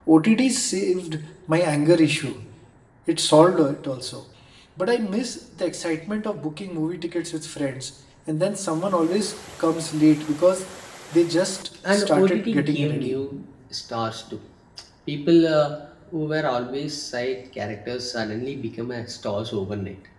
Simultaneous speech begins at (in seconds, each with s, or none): 11.9 s